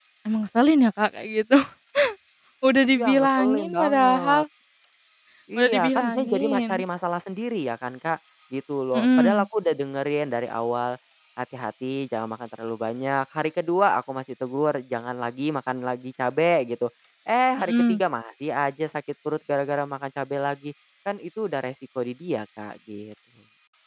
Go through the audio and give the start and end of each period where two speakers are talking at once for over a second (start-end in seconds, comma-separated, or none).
3.0-4.4, 5.6-6.8